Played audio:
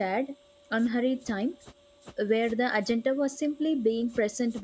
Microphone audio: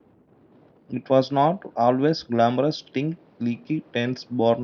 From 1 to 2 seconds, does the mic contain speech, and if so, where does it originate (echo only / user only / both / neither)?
user only